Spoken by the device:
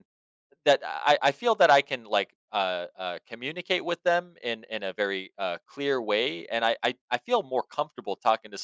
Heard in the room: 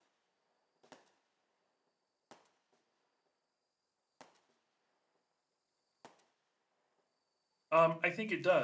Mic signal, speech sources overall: user only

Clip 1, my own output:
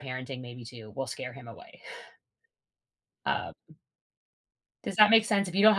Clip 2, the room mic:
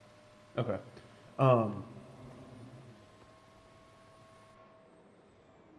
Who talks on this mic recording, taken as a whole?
user only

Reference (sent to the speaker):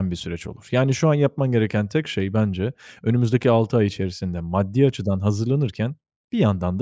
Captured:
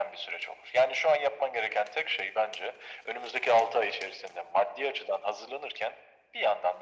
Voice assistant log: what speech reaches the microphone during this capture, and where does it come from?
echo only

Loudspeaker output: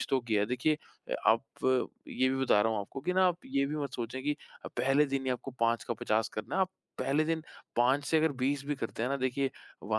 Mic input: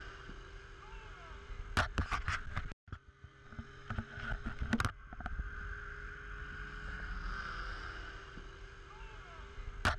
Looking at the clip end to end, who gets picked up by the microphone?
neither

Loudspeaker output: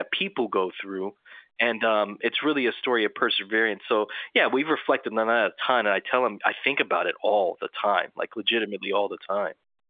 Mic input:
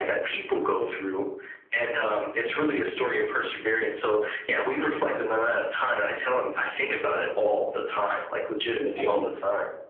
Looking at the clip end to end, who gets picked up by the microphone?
both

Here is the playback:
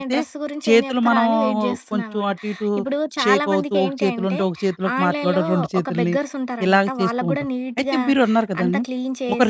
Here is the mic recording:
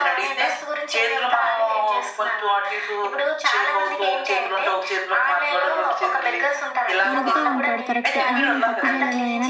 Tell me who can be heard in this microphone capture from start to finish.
both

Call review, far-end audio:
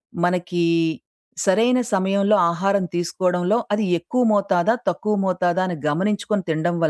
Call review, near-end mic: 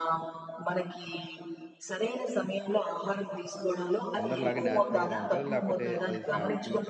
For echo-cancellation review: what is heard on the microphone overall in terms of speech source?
both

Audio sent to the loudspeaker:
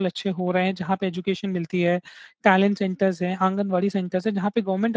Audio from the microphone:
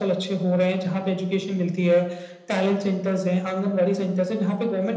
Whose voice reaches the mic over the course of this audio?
echo only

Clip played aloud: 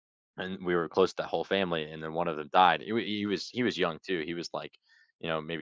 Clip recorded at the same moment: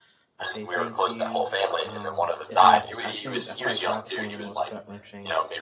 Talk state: both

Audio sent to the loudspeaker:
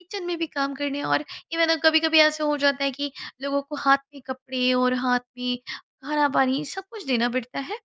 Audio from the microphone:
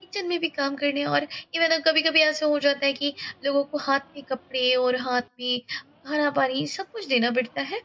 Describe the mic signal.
echo only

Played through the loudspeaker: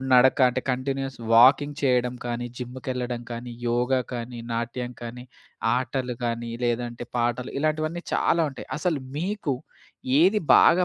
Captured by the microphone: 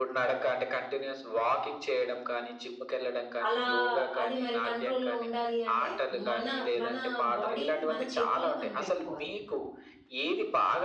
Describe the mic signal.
both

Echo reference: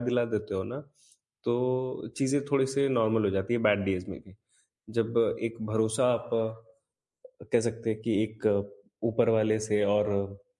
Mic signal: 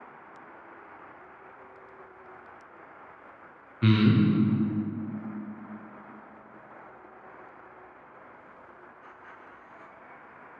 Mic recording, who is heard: user only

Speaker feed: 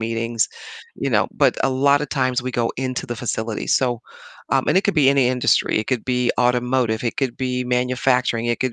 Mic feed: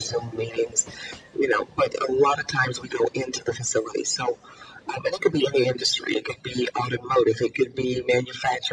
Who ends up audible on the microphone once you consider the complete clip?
echo only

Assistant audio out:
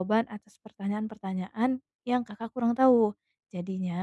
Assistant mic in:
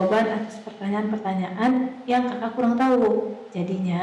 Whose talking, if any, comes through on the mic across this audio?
echo only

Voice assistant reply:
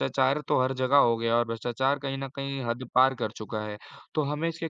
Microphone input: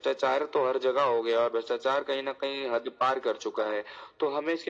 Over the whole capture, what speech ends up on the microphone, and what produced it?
echo only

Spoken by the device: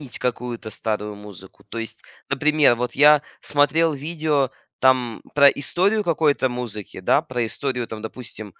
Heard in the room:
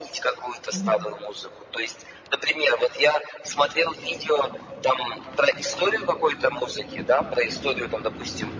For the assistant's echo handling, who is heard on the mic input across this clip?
both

